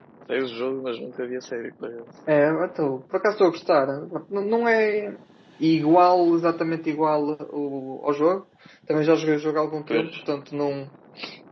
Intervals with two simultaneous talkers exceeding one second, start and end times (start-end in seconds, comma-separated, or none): none